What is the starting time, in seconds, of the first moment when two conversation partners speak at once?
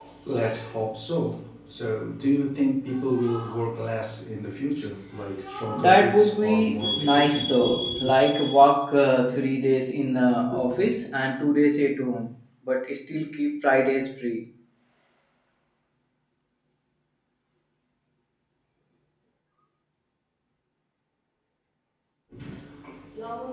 5.7 s

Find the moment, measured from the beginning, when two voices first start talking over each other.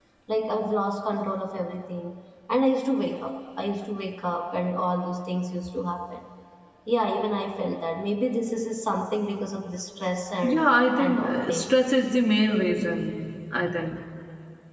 10.4 s

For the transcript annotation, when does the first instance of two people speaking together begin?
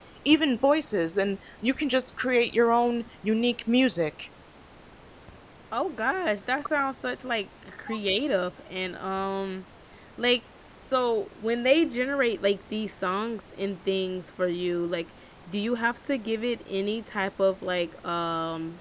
none

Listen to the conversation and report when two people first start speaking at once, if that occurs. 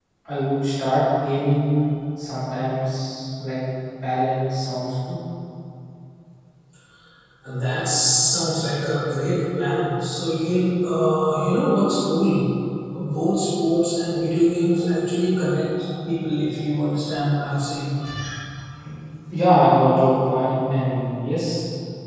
none

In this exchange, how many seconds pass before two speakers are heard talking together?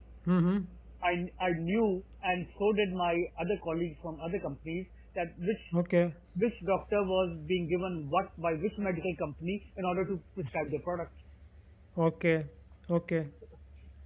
none

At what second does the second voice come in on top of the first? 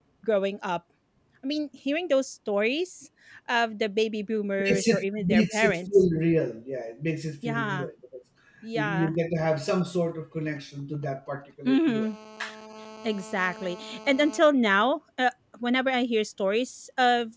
4.6 s

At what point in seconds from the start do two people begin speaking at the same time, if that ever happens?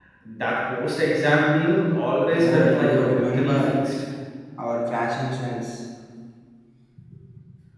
2.3 s

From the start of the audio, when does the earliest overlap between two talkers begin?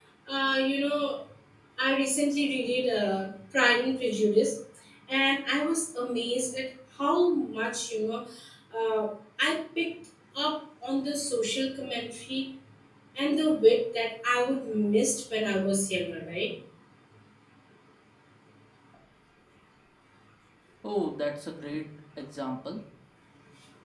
none

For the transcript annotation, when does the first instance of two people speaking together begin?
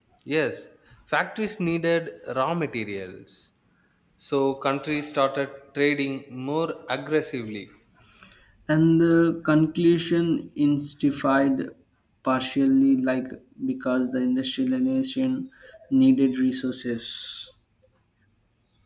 none

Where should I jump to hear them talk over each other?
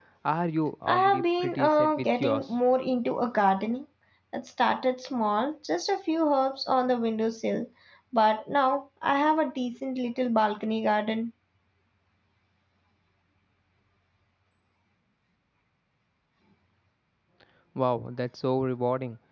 0.9 s

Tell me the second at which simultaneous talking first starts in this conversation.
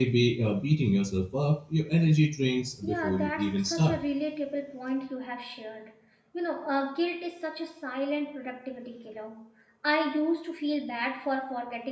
2.8 s

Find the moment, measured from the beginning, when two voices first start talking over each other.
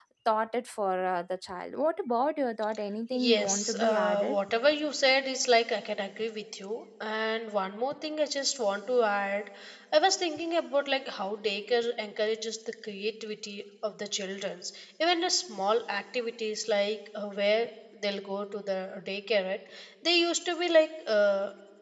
3.1 s

